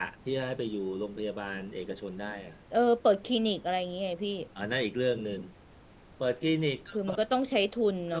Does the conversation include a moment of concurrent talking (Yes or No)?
No